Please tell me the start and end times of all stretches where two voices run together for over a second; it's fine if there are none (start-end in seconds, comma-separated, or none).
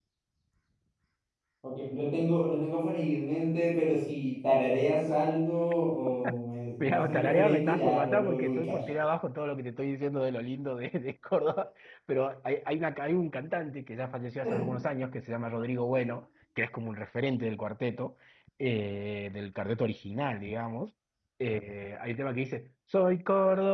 6.8-8.8